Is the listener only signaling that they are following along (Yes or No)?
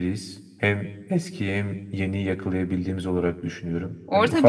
No